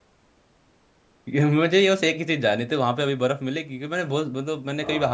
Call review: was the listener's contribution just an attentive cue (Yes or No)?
Yes